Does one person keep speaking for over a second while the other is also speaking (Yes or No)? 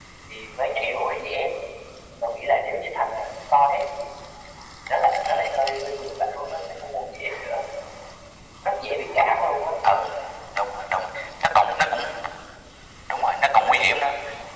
No